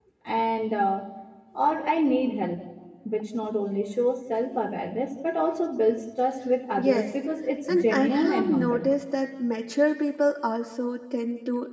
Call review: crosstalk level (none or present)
present